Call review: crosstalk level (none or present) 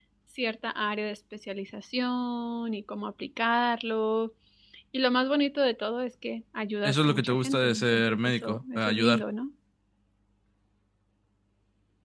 present